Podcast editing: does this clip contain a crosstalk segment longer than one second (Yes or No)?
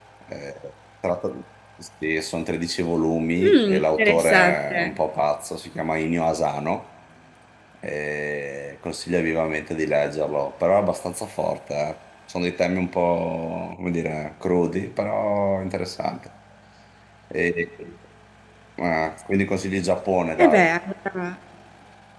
Yes